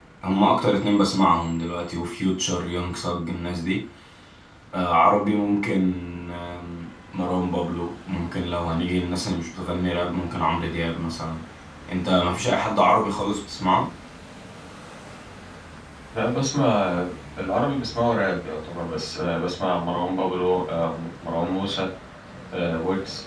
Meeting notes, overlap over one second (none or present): none